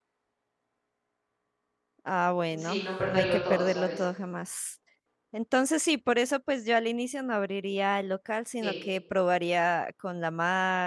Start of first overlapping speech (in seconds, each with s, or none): 2.6 s